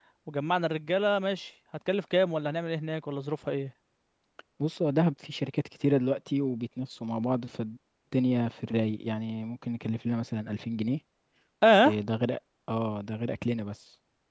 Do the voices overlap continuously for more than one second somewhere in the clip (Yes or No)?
No